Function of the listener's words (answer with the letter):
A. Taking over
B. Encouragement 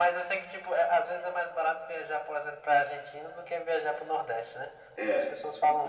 A